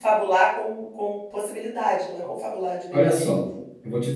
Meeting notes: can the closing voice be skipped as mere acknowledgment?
No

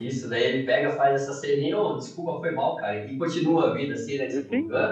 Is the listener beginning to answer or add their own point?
Yes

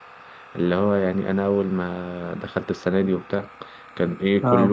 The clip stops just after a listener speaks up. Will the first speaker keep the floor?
Yes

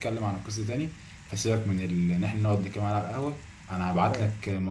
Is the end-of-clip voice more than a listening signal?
No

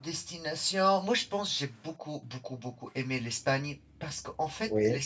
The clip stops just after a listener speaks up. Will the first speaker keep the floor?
Yes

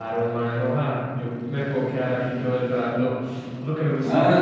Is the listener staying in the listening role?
No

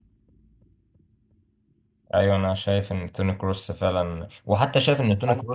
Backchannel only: Yes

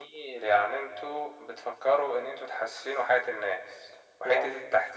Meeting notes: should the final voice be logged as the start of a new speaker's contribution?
No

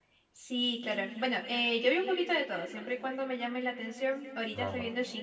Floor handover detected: No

